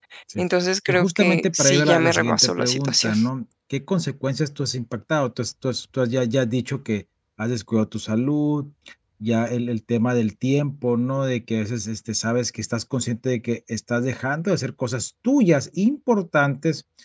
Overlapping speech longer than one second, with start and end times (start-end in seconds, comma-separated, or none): 0.9-3.1